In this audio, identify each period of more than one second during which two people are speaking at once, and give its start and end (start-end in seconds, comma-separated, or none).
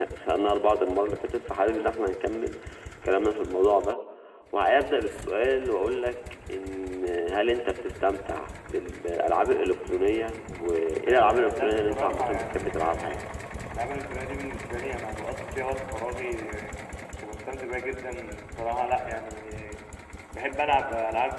11.1-13.2